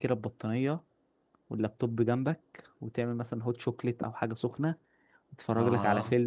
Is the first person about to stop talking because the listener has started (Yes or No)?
No